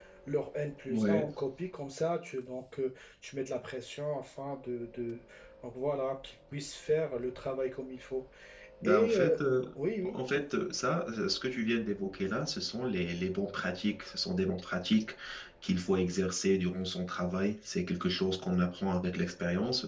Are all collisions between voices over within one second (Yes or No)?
Yes